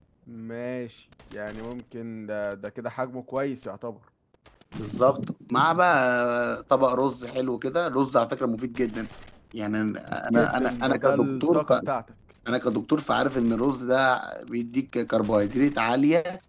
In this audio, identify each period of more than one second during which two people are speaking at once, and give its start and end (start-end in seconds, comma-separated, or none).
10.2-11.6